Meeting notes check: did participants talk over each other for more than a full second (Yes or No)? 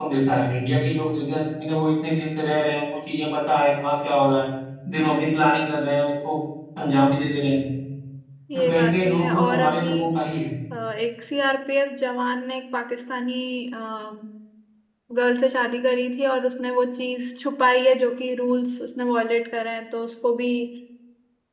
Yes